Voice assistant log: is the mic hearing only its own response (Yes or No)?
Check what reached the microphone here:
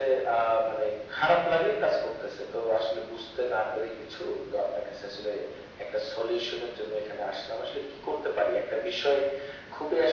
Yes